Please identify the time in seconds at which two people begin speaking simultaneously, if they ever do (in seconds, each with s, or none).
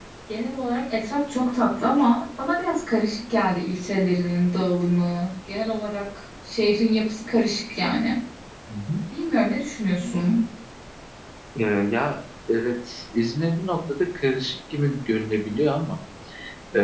none